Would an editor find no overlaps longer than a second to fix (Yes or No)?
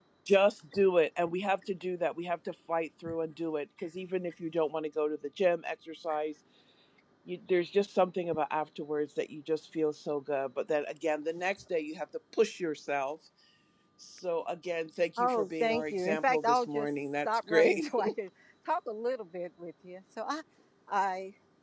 No